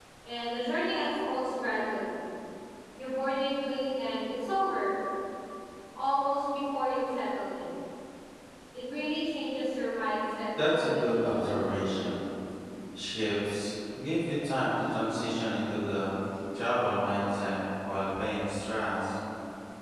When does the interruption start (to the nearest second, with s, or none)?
11 s